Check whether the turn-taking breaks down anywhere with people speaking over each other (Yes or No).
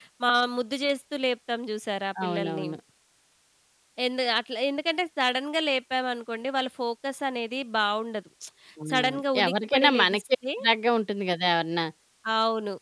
Yes